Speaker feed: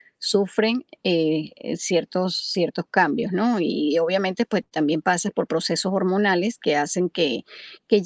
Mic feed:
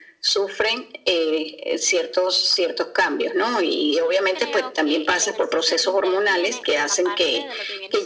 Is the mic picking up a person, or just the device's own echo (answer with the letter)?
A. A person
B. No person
A